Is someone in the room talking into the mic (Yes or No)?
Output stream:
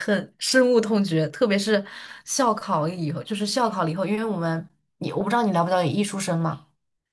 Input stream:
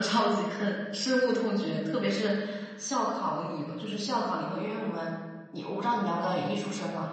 No